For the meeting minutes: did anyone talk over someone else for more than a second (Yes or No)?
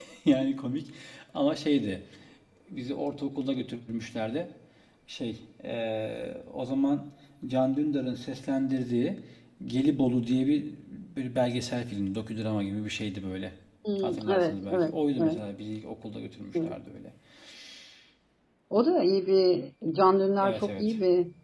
Yes